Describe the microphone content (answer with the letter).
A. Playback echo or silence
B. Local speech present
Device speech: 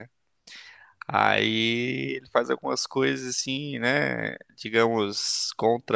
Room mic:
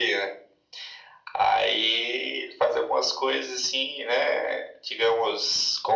A